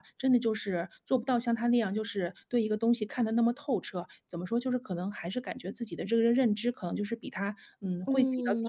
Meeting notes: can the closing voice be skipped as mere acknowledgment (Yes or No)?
No